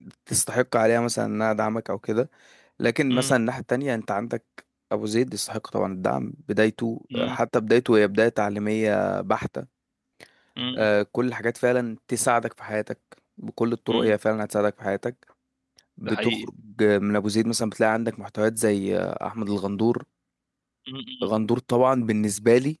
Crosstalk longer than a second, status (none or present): none